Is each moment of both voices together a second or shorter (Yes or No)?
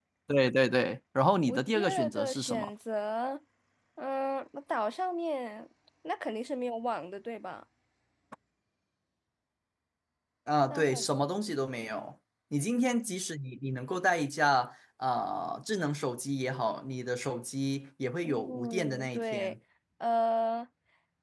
No